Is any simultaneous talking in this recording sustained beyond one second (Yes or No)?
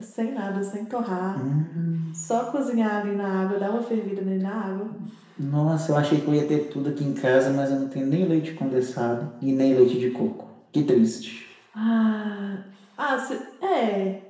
No